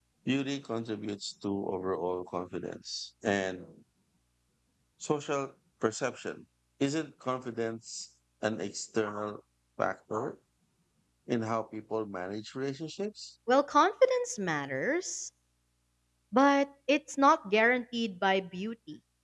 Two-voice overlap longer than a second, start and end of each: none

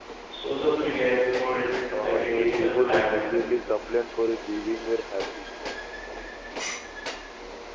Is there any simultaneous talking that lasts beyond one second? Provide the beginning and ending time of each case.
2.0-3.2

